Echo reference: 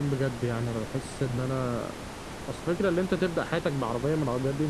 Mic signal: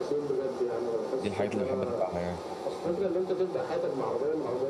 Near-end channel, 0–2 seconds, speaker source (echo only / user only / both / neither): both